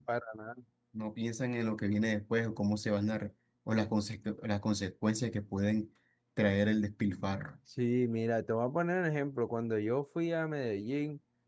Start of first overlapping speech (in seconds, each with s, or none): none